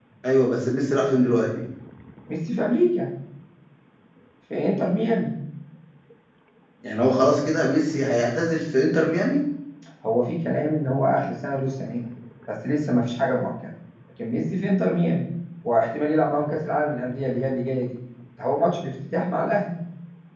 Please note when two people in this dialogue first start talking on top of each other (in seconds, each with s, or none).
none